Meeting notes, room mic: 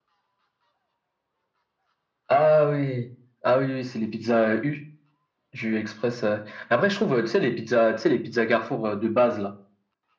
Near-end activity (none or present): none